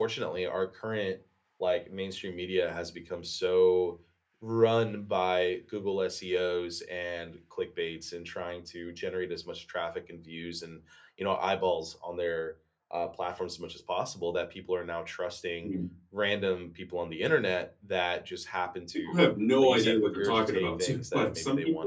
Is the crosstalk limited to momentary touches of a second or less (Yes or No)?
No